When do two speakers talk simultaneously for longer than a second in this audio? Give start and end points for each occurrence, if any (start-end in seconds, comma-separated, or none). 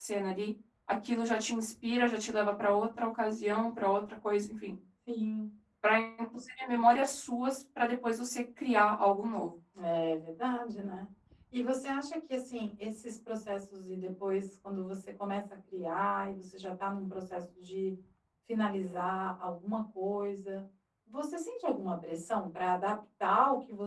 none